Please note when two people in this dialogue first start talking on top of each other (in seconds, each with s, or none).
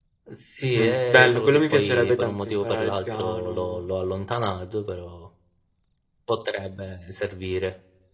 0.6 s